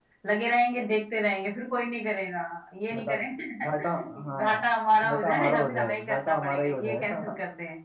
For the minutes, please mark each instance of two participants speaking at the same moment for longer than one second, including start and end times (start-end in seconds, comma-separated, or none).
5.0-7.2